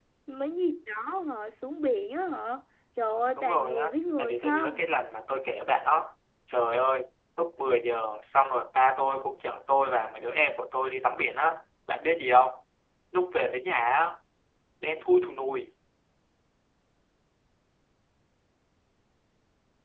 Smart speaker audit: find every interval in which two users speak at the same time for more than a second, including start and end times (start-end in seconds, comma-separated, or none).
3.4-4.8